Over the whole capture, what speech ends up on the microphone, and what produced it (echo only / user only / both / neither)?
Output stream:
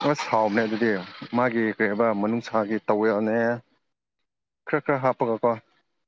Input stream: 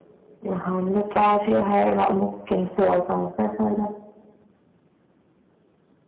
user only